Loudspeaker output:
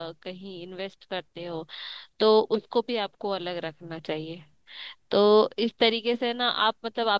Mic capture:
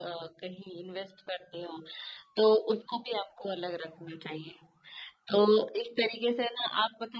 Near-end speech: none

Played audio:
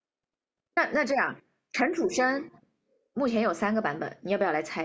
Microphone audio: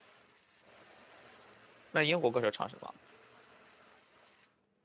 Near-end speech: present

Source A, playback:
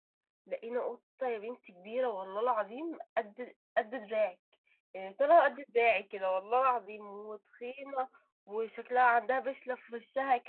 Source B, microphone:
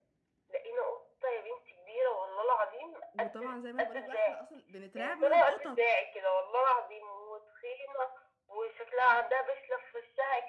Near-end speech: present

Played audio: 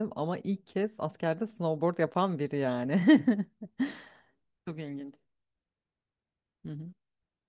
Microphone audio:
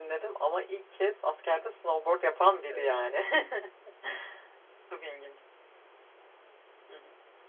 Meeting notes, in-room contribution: present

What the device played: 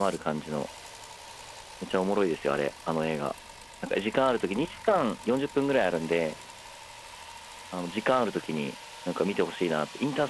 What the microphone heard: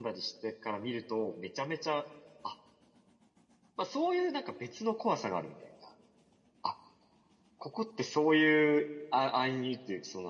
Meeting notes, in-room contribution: present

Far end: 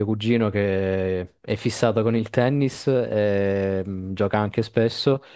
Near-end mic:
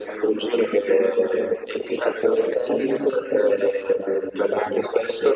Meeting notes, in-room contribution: none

